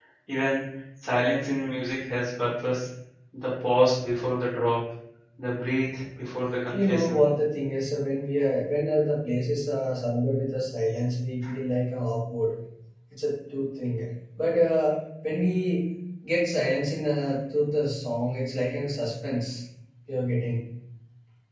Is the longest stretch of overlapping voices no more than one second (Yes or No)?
Yes